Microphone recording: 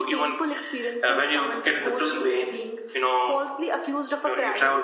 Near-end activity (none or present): none